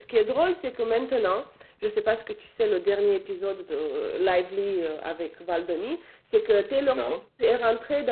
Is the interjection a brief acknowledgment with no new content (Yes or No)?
Yes